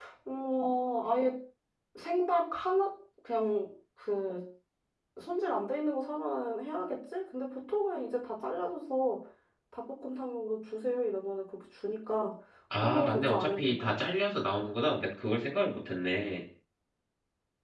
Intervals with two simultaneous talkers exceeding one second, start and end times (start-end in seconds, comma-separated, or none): 12.8-14.1